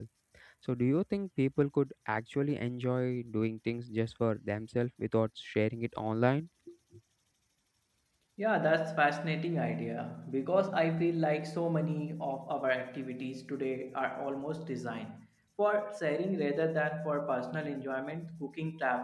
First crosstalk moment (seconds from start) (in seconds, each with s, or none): none